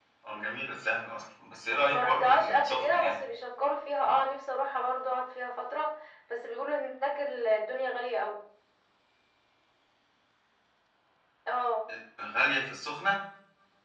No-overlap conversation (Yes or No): No